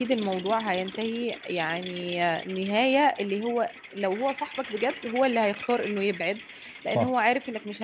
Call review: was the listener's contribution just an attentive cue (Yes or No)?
Yes